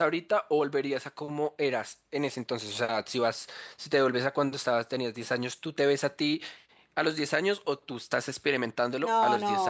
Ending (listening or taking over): taking over